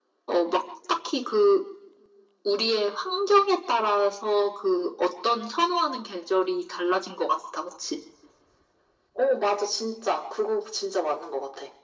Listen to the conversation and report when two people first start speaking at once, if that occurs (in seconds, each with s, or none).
none